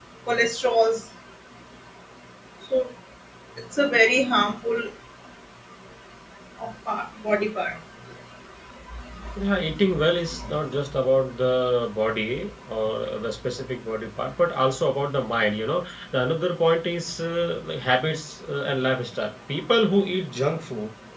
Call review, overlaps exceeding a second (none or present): none